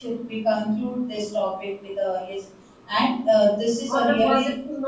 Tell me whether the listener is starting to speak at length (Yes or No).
Yes